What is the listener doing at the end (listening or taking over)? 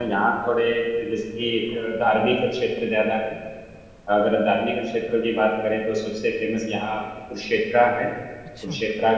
listening